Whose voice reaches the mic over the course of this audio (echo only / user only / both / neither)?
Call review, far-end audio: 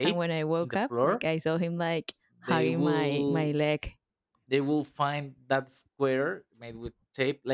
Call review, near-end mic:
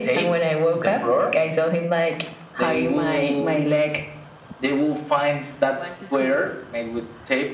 both